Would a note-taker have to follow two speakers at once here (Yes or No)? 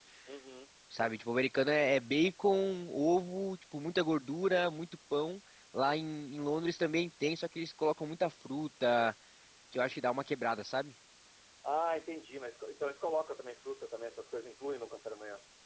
No